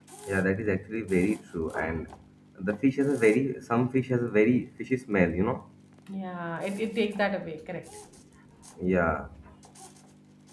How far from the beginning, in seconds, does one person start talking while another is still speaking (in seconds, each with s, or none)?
none